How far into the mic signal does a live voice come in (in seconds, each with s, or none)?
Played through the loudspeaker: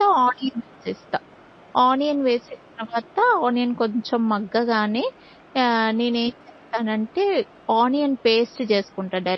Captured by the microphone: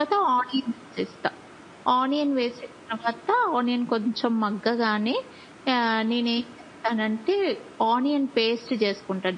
none